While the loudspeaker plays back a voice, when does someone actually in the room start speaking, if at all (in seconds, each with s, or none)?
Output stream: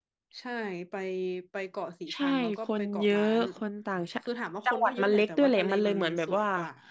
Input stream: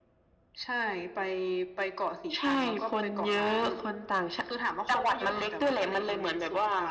none